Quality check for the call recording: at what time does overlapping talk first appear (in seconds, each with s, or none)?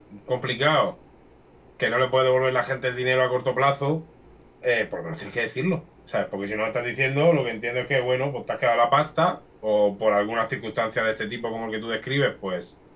none